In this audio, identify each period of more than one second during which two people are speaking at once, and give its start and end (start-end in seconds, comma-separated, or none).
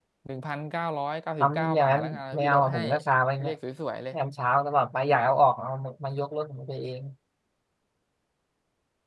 1.4-2.8